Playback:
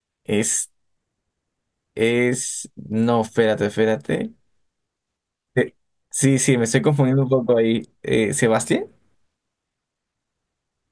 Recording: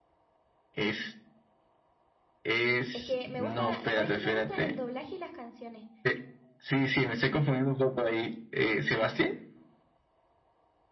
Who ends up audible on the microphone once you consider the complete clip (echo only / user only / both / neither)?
both